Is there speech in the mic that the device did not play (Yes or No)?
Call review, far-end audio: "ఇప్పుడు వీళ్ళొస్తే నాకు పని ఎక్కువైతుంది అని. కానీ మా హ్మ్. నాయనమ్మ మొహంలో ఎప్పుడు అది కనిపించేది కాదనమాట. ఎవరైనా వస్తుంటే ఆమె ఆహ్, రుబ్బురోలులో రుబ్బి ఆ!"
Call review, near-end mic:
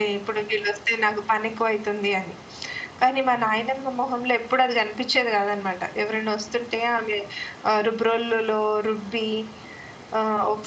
No